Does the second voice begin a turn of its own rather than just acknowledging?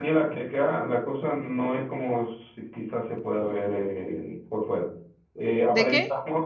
No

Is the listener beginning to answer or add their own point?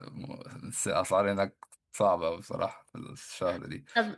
No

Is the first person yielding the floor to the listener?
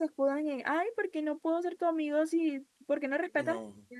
No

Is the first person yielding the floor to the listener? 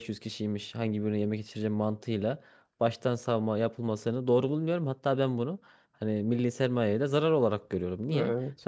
No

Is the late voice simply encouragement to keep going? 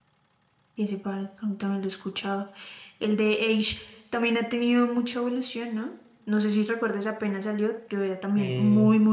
Yes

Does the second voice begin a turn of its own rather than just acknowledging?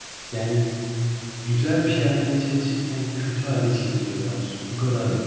No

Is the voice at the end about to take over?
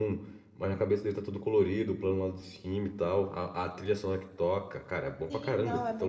Yes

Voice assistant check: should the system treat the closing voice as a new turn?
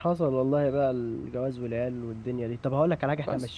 No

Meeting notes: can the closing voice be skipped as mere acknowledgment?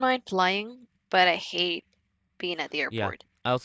No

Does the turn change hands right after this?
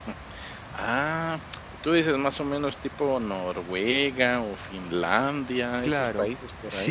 Yes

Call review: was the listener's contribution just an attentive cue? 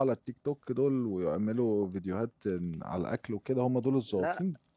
No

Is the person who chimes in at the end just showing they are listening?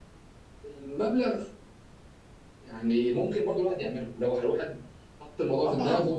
Yes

